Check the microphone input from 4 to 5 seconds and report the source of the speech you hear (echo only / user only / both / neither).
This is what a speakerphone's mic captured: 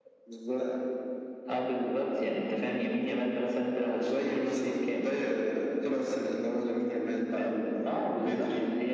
echo only